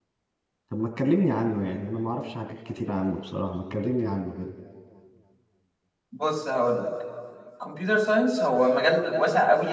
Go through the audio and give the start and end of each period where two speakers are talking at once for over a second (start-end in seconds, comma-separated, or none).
none